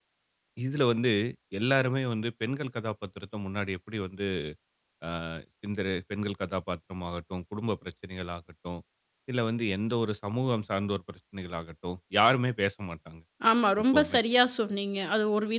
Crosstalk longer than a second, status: none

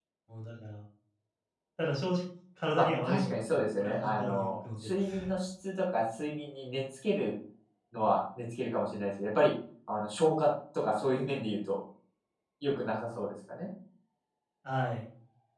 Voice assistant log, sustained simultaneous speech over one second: present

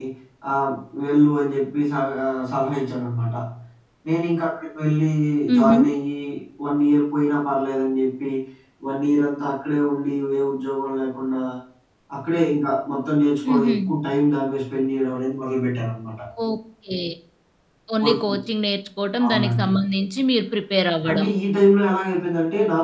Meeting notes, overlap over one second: none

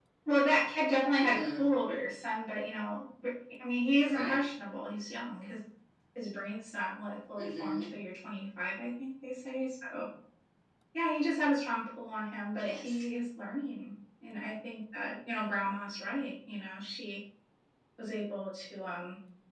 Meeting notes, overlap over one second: none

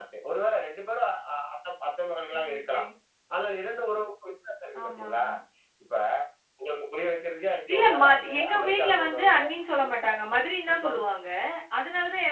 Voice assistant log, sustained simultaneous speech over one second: present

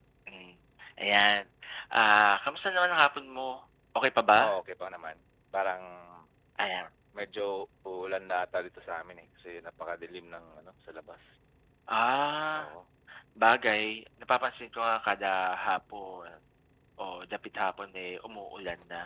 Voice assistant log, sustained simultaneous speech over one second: none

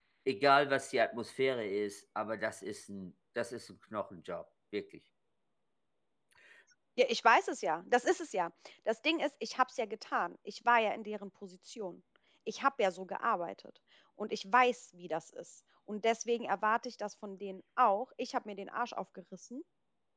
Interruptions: none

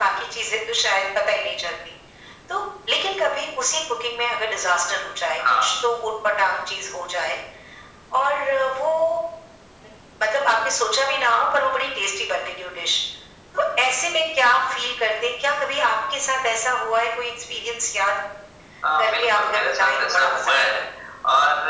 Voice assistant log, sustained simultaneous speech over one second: present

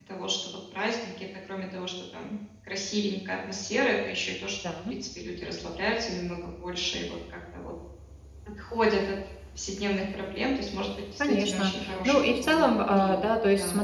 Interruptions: present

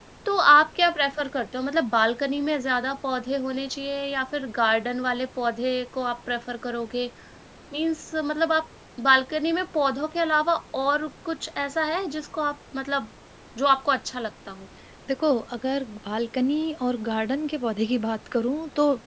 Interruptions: none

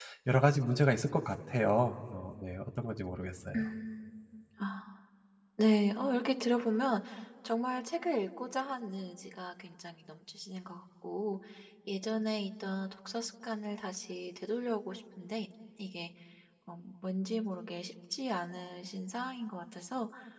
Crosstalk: none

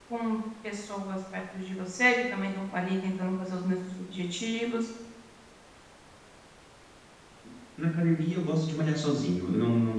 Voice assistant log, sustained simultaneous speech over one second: none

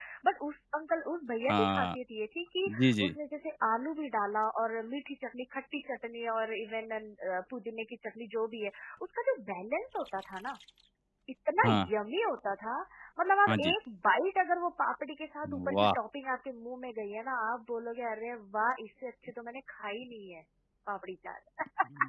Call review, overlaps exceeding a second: none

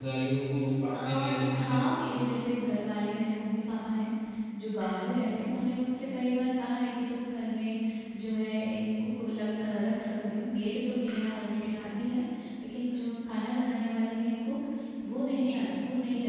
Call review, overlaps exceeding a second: none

